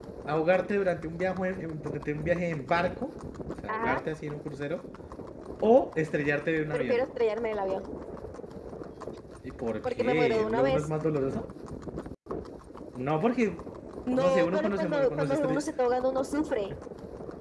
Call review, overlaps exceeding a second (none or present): present